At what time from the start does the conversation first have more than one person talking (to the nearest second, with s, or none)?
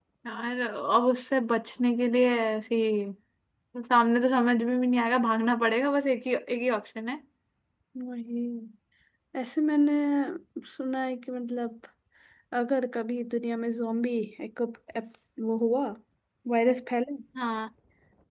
none